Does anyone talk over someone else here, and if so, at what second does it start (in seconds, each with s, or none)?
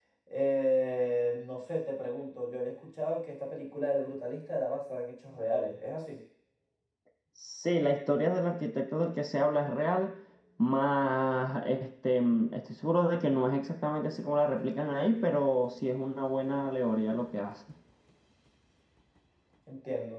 none